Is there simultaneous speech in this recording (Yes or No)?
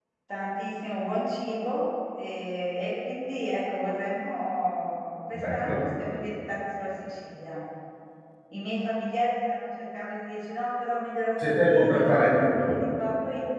Yes